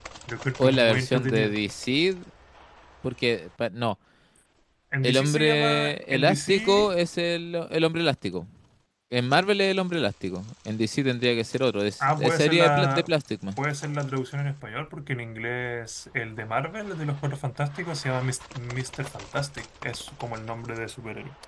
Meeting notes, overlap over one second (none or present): present